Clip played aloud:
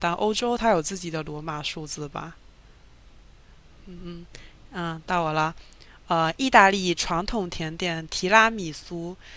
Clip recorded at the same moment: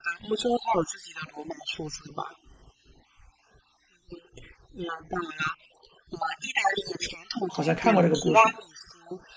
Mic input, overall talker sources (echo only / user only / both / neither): both